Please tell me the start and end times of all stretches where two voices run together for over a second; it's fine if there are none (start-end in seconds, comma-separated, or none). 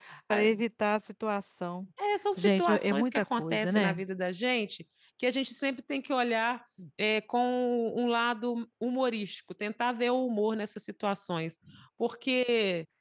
2.4-4.0